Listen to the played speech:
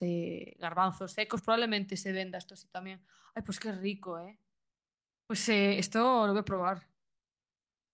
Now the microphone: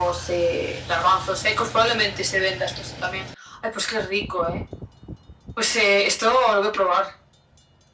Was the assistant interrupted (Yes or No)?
No